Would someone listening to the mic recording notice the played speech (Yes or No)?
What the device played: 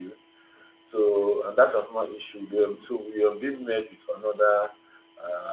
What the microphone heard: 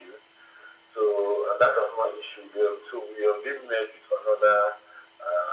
Yes